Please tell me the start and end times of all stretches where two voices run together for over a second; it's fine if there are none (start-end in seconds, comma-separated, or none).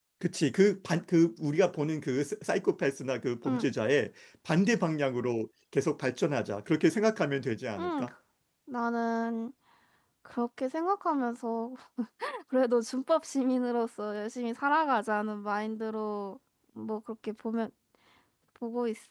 none